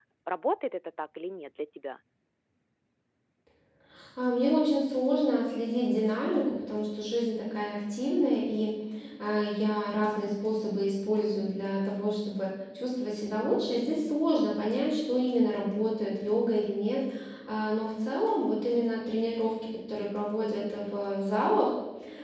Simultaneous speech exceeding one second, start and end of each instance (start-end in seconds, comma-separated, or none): none